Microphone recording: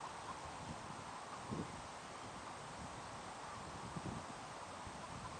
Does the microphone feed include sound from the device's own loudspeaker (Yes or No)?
No